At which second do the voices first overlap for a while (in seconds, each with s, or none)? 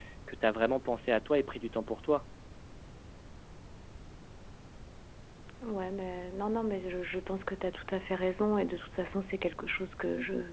none